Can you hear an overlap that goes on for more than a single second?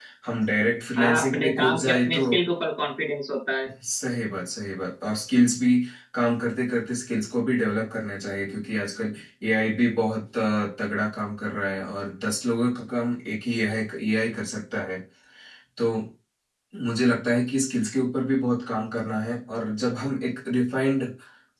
Yes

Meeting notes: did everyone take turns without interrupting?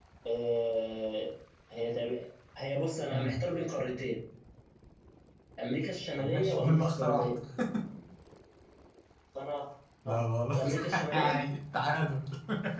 No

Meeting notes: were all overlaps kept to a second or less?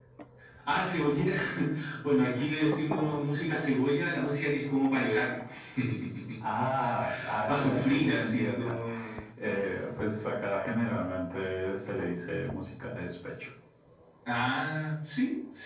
No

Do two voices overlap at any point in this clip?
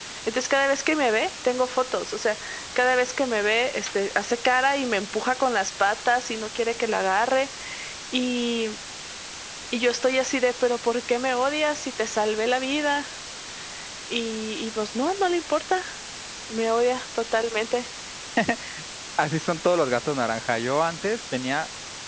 No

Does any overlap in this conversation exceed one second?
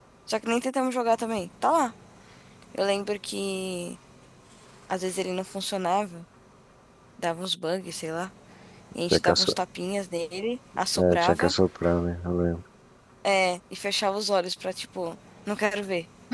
No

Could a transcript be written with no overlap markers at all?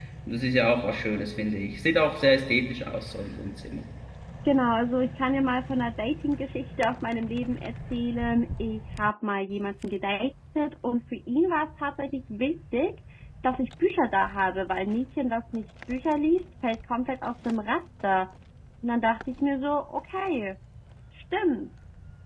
Yes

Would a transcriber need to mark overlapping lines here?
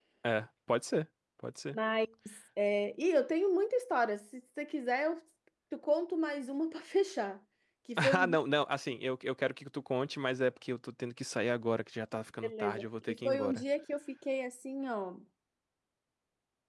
Yes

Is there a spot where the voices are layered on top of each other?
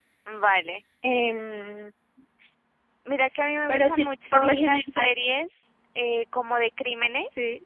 Yes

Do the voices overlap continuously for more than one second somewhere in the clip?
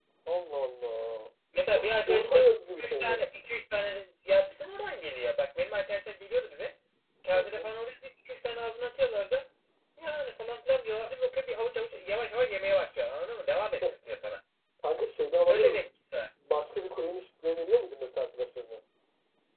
Yes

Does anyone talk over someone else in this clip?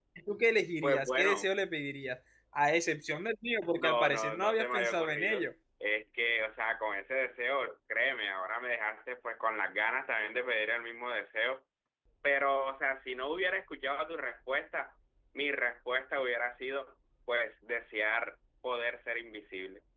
Yes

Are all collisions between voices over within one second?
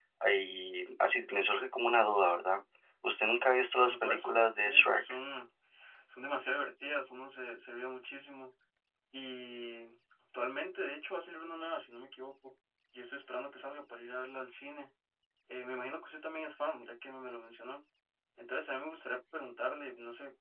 No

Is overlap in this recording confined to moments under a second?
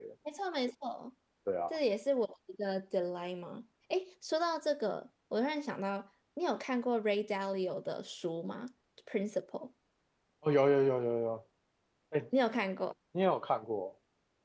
Yes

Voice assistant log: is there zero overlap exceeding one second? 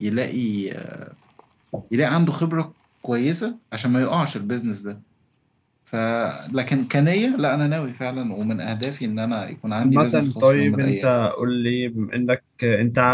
No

